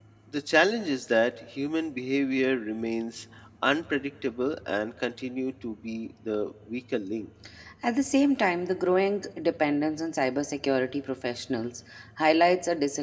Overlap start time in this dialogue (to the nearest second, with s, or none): none